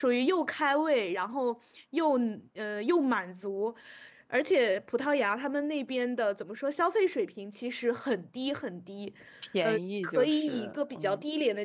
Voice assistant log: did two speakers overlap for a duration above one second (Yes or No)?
Yes